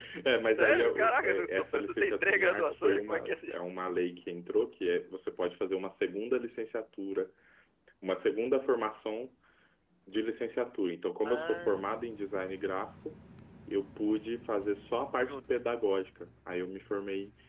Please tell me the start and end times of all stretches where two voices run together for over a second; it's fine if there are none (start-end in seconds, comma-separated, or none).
0.6-3.5